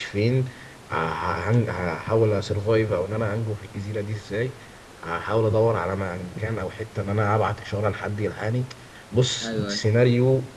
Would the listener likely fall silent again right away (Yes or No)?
Yes